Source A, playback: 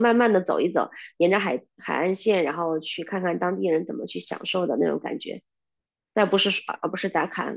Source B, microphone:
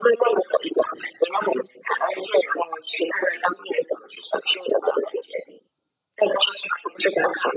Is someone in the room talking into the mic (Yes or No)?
No